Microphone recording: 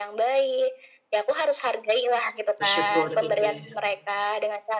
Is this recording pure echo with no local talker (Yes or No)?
No